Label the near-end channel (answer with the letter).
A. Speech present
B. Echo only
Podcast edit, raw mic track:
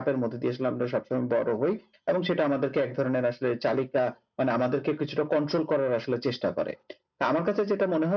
B